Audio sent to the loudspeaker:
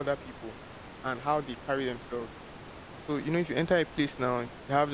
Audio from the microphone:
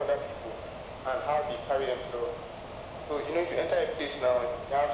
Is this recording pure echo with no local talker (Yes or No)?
Yes